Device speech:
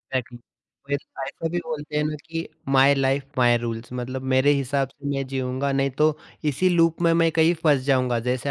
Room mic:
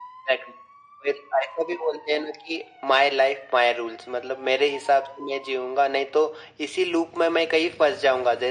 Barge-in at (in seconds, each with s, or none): none